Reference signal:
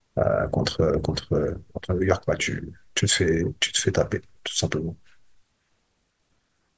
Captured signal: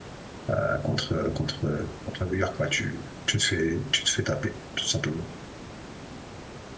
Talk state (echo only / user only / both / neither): echo only